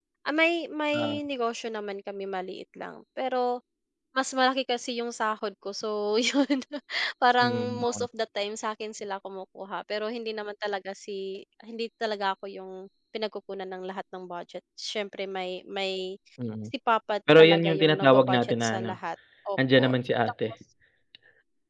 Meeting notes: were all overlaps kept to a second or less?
No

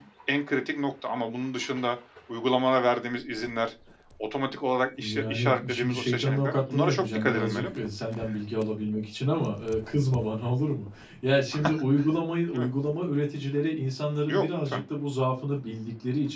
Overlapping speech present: Yes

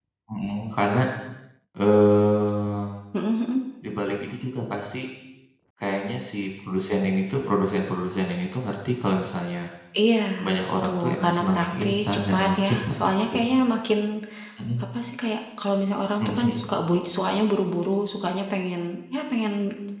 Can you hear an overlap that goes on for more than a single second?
Yes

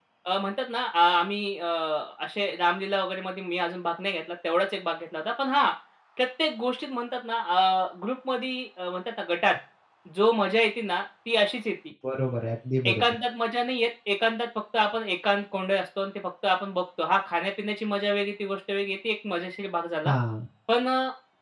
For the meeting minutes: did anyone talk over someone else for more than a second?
No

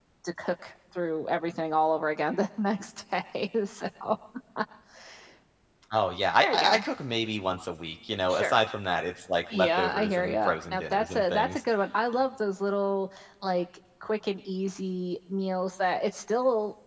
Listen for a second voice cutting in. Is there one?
Yes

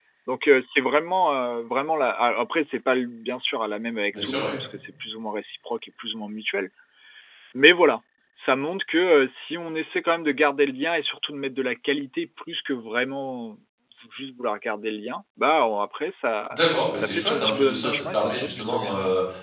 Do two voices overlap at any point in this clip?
Yes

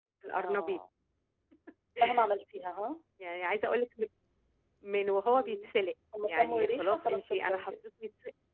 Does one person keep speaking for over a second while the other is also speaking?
Yes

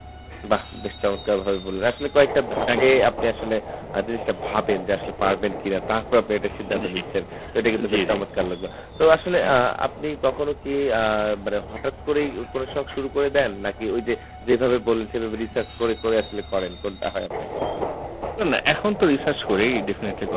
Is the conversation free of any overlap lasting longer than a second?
Yes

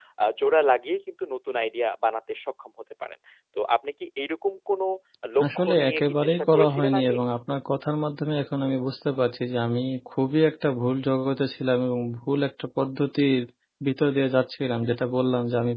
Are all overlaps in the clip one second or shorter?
No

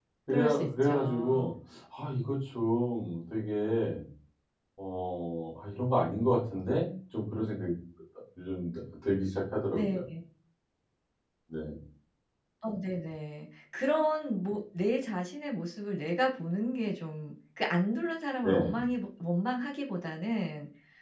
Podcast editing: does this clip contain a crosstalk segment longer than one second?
Yes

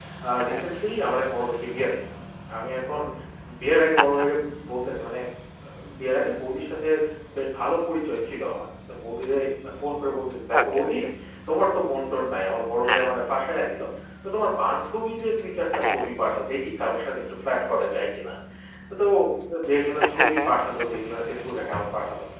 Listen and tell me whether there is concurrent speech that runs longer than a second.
No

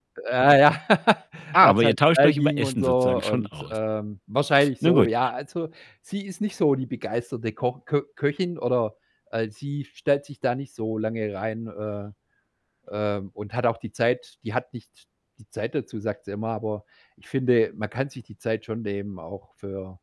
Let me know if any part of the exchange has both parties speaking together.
Yes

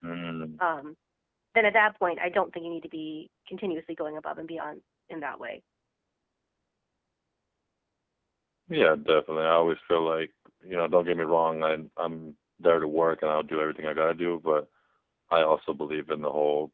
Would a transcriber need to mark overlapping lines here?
No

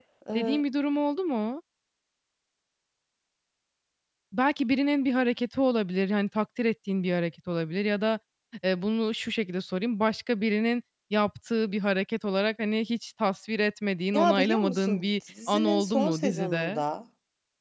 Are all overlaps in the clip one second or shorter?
No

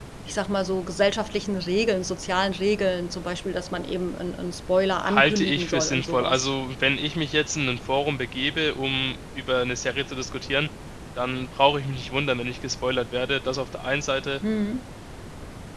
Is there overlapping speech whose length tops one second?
Yes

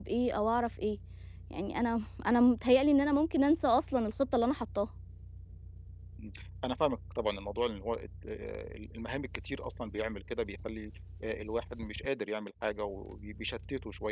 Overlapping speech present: No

